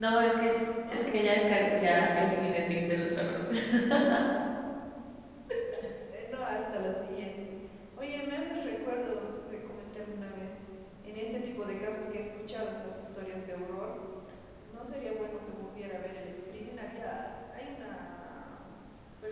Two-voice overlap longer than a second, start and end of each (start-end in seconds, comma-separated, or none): 0.9-2.5